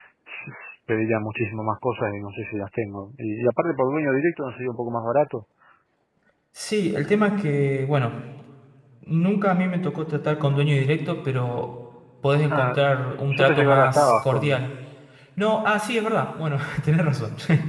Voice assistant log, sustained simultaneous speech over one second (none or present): present